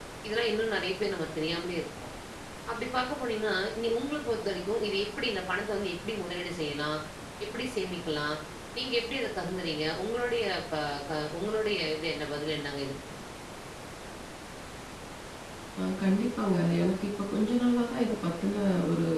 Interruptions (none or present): none